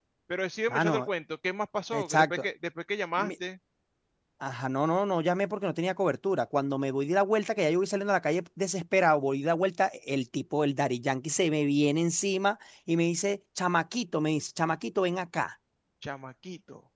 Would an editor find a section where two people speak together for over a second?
No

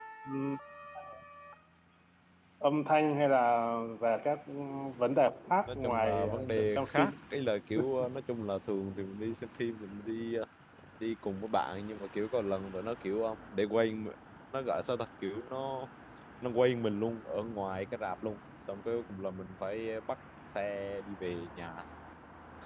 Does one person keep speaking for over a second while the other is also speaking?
Yes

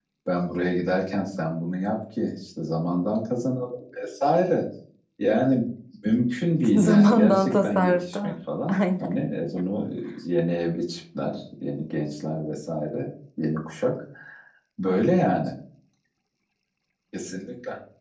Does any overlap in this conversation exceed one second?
Yes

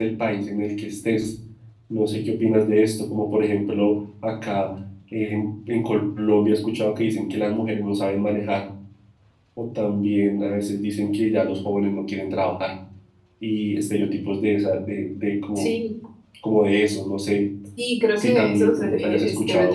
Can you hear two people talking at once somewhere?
Yes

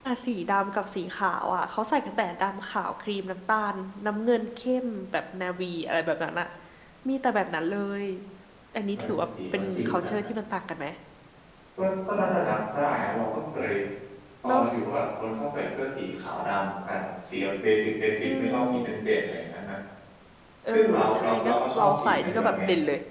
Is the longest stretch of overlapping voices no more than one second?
No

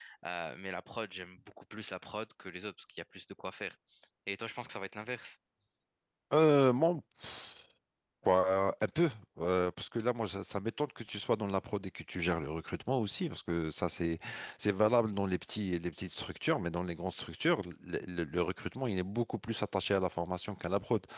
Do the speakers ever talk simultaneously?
No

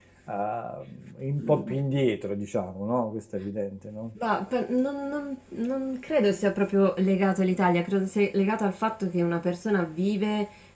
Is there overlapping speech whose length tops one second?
No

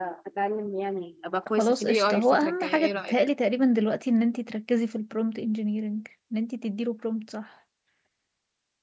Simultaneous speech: Yes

